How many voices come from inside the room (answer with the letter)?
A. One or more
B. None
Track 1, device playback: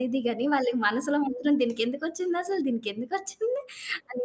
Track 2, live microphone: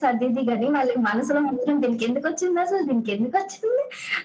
B